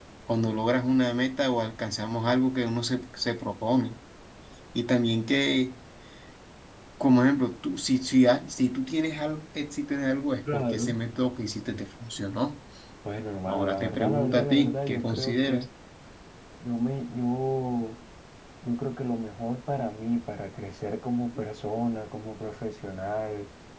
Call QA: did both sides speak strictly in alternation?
No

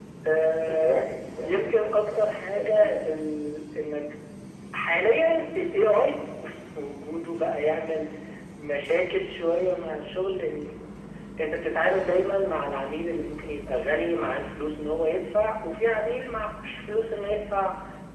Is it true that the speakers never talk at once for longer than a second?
No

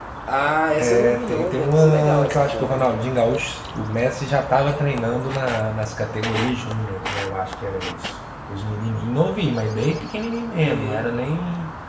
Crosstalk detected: Yes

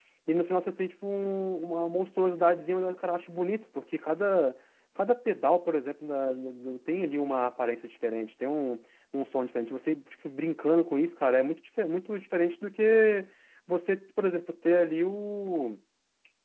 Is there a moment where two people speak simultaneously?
No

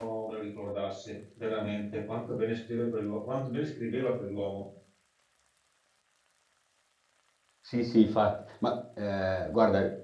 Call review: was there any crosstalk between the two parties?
No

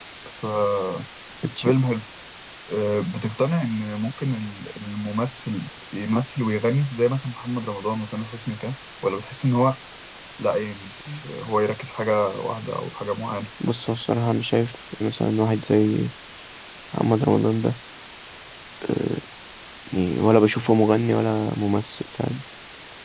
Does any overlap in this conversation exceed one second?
No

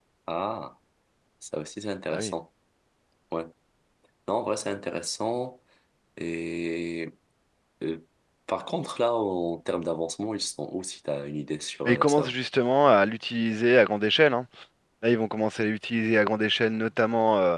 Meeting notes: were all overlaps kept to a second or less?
Yes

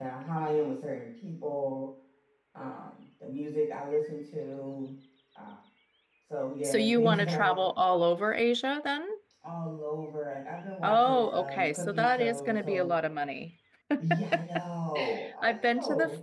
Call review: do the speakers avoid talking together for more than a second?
No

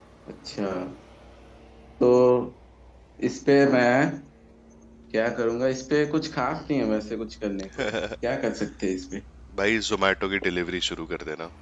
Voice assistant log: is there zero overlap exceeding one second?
Yes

